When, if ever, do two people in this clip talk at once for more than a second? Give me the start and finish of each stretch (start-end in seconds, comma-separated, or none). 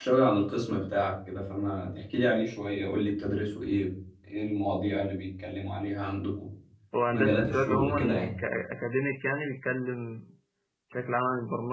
7.1-8.3